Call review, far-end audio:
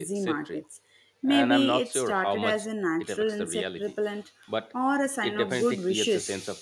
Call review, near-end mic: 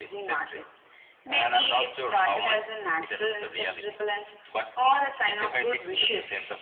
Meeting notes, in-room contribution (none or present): none